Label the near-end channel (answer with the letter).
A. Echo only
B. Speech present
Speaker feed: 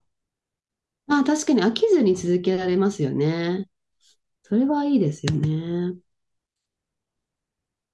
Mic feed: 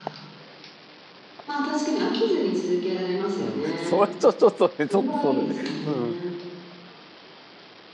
B